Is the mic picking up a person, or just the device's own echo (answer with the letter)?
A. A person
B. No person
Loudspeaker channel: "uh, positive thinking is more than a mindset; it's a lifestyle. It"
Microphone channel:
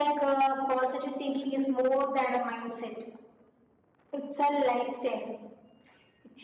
B